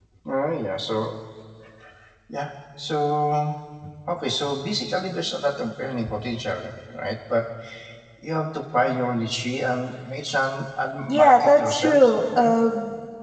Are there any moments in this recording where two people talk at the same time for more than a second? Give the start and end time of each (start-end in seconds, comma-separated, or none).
11.1-12.5